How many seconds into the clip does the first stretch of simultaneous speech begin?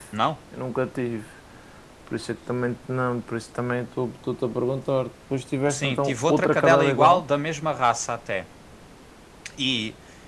5.7 s

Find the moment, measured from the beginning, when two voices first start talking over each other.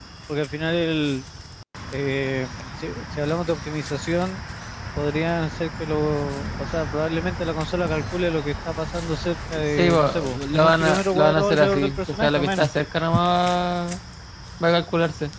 9.5 s

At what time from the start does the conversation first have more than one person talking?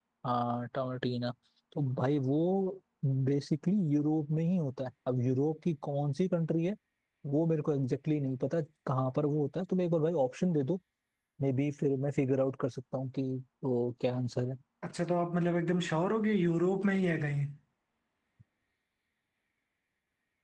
none

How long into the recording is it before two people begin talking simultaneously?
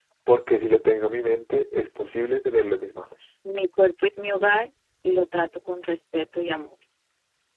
none

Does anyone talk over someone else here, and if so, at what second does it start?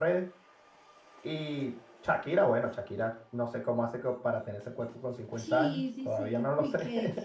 5.4 s

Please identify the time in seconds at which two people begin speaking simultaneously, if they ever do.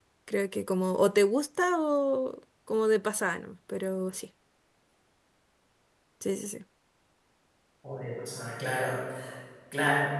none

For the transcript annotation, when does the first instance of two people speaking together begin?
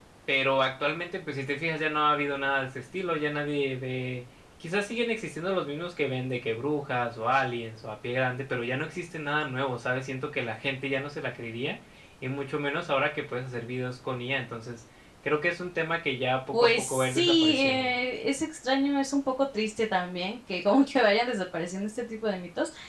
16.5 s

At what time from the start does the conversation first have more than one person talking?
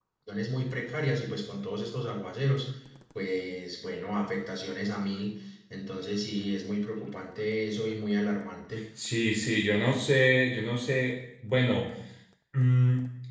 none

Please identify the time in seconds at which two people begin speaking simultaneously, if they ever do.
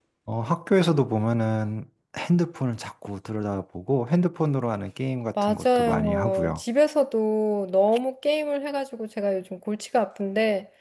5.4 s

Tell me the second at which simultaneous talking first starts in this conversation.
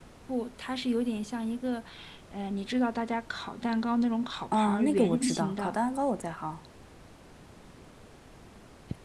4.5 s

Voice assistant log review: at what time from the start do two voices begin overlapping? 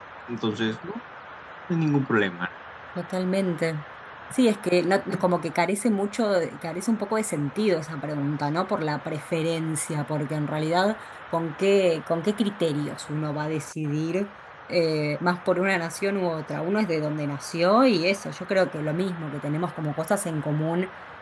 none

